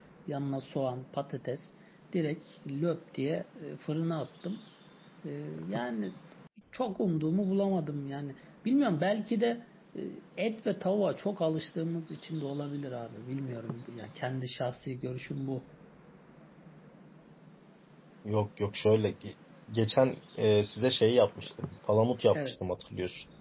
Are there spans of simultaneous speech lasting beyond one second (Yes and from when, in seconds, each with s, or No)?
No